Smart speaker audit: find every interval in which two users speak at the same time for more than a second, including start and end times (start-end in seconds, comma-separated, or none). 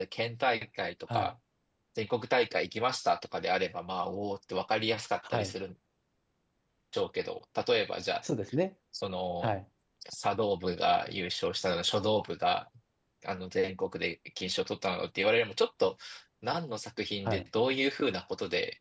none